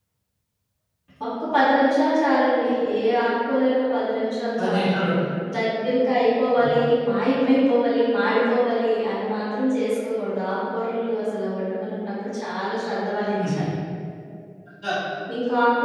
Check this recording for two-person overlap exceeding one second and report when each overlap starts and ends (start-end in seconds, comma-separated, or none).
none